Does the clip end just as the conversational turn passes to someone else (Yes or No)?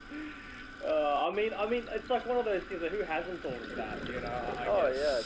Yes